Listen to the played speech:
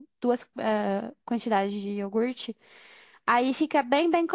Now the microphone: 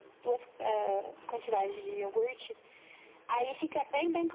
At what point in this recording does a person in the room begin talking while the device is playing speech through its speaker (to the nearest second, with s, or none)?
none